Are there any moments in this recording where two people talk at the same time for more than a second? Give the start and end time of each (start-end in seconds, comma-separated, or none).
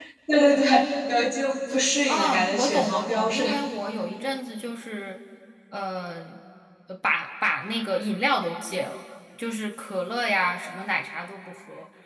2.0-3.6